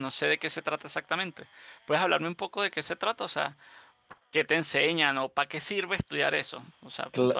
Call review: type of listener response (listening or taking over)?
taking over